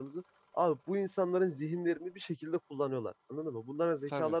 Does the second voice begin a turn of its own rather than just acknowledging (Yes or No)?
Yes